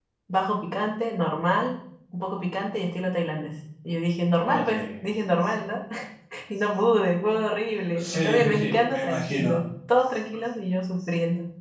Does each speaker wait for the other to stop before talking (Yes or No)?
No